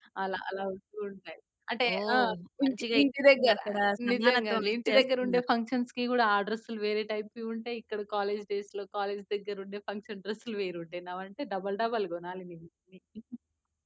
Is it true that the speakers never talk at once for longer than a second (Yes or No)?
No